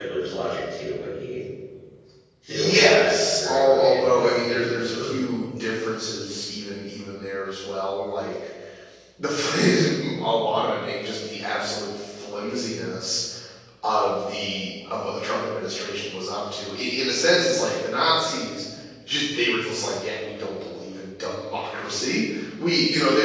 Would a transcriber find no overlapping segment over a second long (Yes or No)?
No